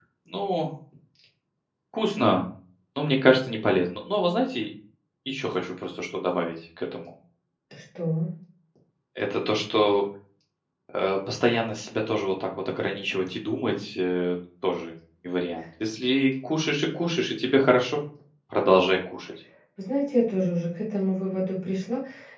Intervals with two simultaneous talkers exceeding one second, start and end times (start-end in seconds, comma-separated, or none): none